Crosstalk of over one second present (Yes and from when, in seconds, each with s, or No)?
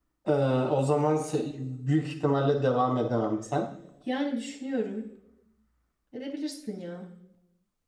No